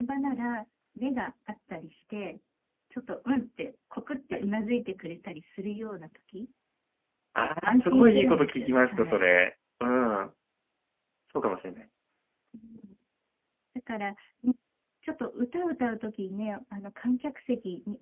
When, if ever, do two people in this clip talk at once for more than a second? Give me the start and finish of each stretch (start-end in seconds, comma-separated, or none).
7.4-9.3